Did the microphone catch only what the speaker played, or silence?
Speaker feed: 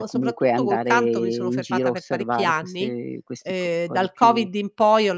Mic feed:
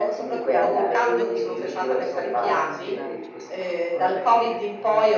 No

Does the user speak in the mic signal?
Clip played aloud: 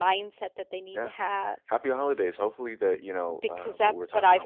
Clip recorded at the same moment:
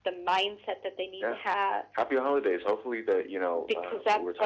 No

